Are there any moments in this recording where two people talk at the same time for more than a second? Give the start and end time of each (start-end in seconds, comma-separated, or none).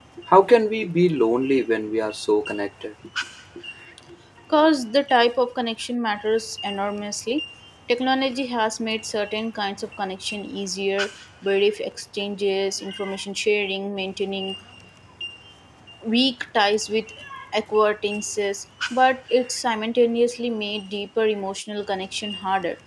none